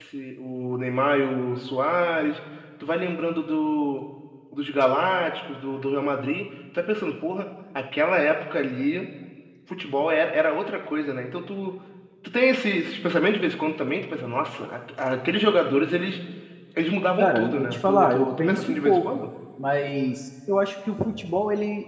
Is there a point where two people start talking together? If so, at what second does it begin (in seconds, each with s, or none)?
17.2 s